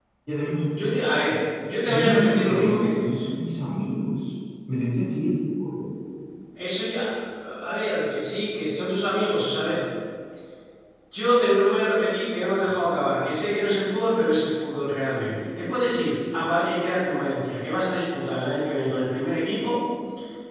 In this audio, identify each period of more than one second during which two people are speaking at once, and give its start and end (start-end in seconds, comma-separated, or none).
1.9-3.1